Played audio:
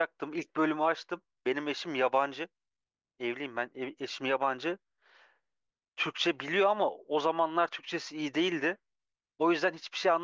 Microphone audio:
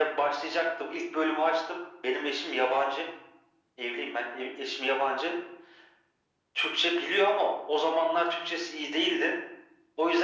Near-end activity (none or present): none